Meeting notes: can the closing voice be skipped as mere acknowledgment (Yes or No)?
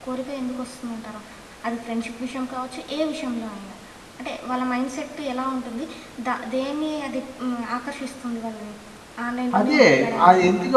No